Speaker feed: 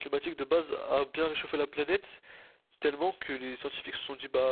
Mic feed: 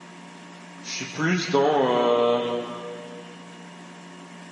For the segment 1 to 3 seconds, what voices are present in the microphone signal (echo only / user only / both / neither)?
user only